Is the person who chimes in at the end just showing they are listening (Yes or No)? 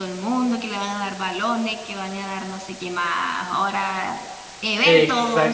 No